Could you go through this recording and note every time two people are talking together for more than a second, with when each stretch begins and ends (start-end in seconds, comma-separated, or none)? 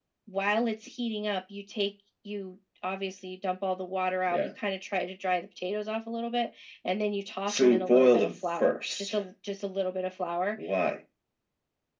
7.5-9.2